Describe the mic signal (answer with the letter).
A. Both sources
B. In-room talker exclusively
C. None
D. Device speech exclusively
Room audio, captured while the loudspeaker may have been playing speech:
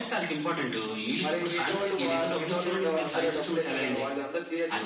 D